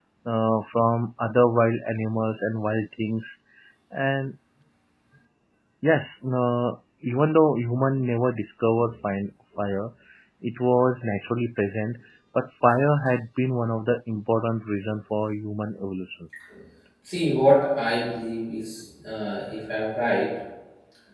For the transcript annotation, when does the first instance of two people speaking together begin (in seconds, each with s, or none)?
none